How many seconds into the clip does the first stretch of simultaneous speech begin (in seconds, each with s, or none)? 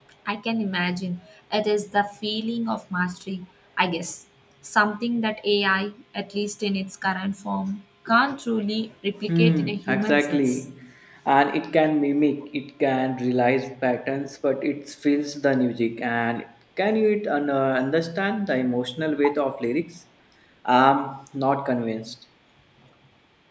9.3 s